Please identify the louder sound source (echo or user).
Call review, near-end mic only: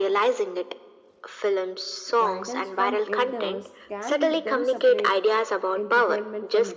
echo